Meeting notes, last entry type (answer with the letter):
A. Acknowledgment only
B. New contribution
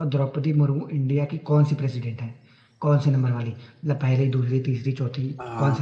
B